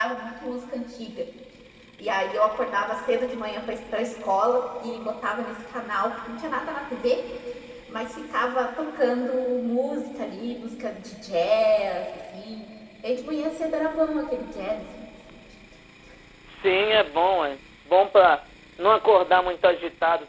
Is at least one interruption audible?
No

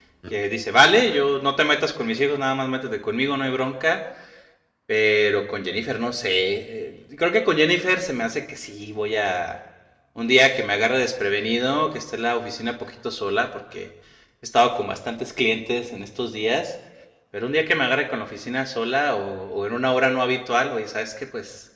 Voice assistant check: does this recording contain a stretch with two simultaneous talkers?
No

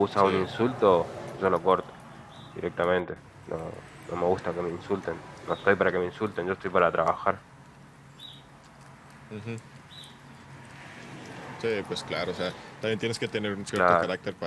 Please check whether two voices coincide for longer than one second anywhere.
No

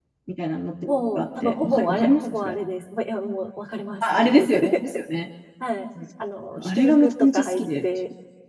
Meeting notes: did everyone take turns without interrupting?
No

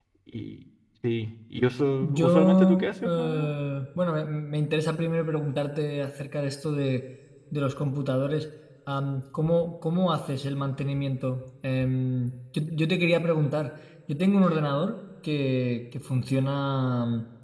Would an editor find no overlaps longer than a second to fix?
No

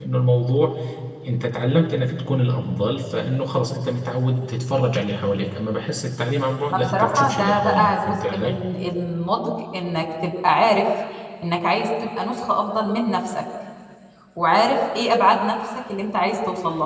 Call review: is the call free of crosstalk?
No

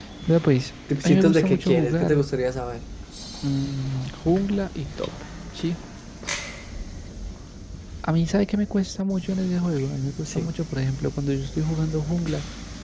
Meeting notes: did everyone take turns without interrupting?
No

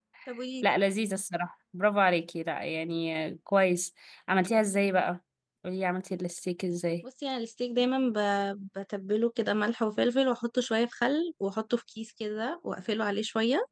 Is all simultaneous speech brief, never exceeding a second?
Yes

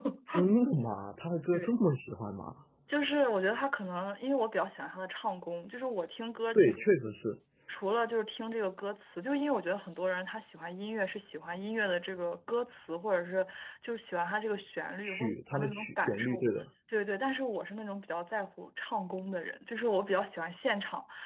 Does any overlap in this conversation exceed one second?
Yes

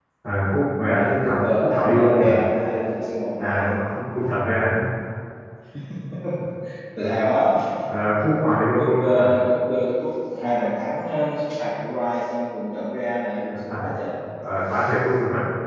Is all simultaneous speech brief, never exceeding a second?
No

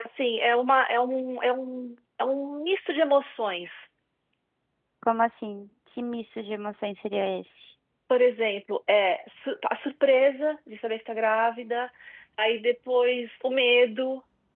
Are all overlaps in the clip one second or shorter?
Yes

